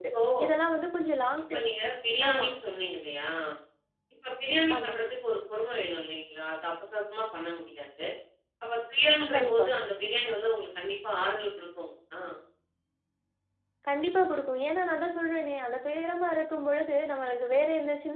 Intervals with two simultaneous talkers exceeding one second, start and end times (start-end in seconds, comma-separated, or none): none